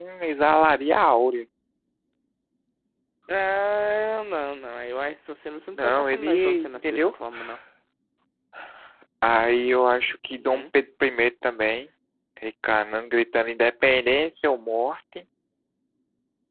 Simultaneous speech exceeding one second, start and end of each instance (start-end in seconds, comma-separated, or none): 5.7-7.2